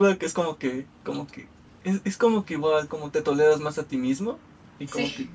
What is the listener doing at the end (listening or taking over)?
listening